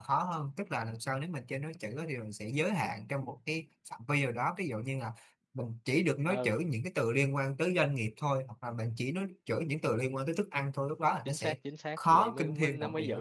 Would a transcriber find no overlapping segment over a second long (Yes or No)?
No